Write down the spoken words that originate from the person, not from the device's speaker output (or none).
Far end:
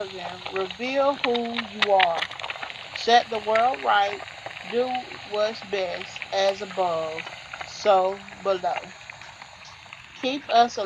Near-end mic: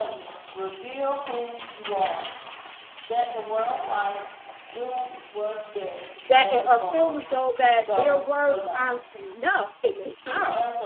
that eh, or feel as though that their words aren't enough, and they are.